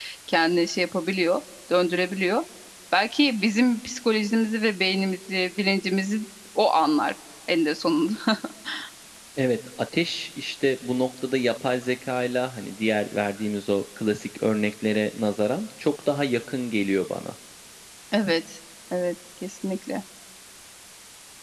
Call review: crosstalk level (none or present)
none